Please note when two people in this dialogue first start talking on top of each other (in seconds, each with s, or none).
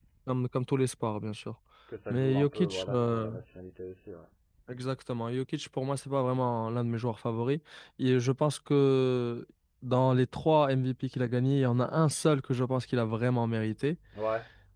2.1 s